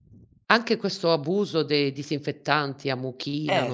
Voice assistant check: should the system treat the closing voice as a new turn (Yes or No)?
No